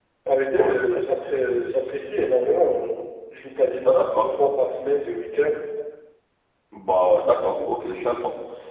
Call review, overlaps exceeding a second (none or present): none